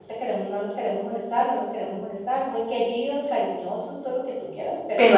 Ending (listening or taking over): listening